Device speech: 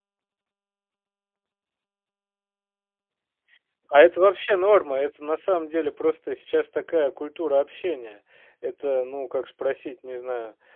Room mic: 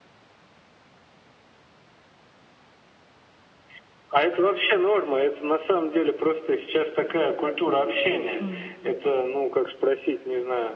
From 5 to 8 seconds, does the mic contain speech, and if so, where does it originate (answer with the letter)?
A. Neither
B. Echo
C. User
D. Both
B